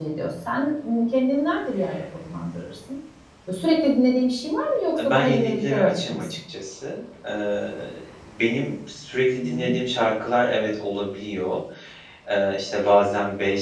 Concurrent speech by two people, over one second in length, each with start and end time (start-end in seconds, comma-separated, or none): 5.0-6.2